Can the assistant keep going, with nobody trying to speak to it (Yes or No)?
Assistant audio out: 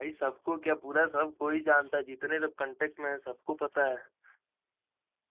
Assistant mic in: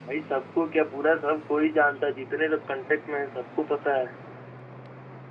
Yes